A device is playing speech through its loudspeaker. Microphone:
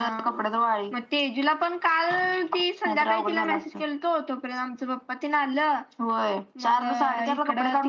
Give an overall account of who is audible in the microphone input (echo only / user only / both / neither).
echo only